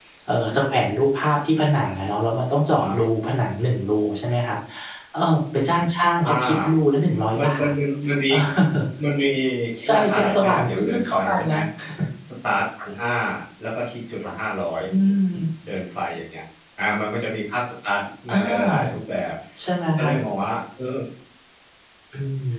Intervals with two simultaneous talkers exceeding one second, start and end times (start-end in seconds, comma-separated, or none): 9.8-11.6